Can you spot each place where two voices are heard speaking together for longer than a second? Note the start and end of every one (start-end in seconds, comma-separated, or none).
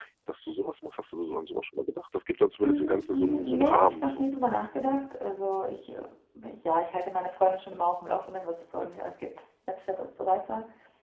2.6-4.2